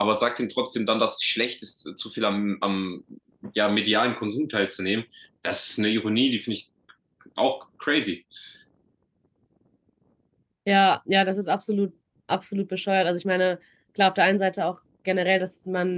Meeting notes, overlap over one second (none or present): none